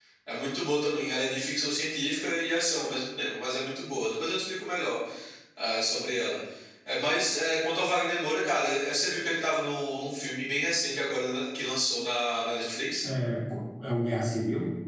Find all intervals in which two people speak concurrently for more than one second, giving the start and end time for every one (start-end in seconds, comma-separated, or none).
none